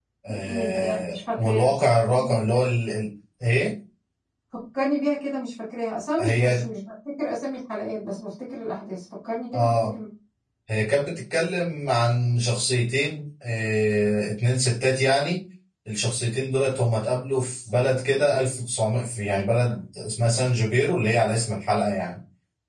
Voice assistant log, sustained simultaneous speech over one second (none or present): present